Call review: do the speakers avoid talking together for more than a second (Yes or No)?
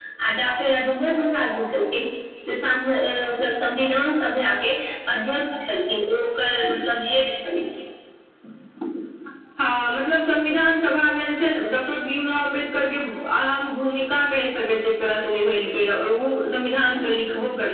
Yes